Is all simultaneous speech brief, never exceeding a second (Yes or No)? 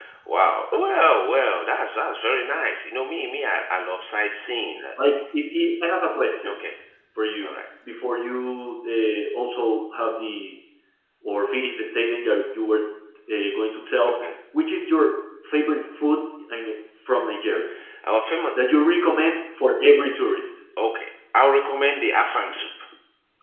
Yes